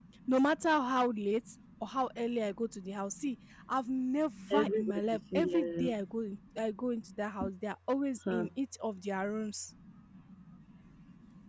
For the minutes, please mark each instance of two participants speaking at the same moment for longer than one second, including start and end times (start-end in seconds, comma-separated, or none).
4.5-5.9